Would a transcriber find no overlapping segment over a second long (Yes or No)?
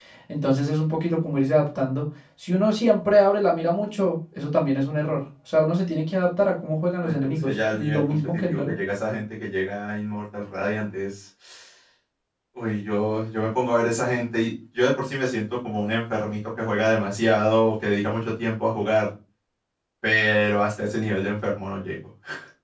No